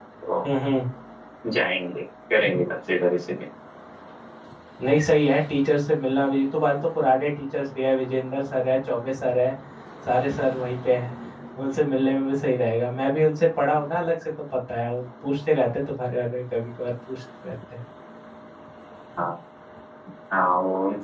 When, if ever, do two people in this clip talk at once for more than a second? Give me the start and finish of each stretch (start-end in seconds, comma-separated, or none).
none